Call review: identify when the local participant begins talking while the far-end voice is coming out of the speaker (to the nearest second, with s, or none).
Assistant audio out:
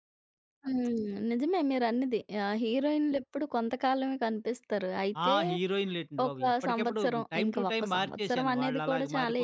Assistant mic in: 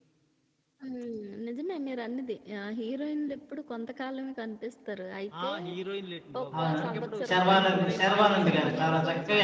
7 s